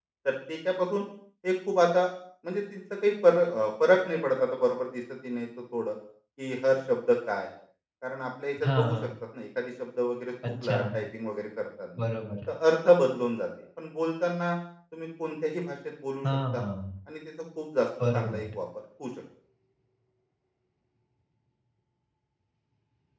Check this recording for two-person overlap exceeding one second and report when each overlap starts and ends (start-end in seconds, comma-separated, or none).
none